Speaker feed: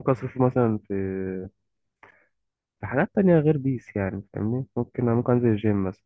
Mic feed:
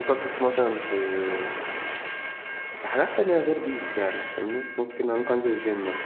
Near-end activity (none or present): none